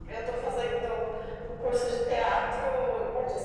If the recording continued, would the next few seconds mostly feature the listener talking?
No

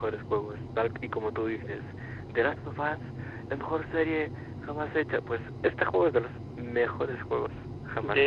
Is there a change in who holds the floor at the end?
Yes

